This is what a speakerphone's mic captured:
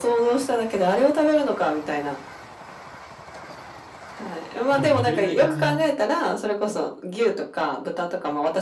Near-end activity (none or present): present